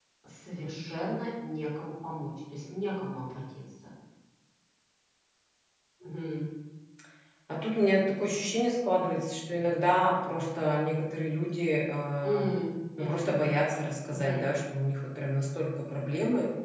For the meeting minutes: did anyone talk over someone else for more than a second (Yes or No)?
No